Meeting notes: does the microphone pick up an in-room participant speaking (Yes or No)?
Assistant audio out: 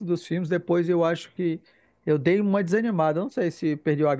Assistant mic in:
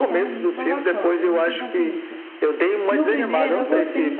Yes